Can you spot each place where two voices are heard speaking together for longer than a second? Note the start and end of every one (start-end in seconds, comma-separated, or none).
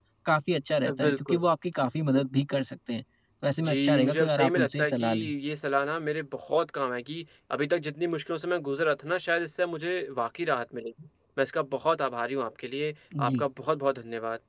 3.6-5.0